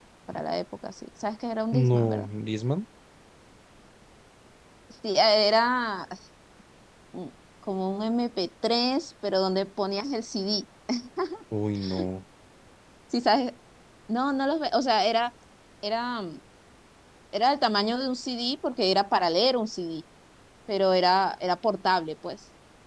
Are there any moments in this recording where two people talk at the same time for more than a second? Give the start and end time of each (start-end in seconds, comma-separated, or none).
none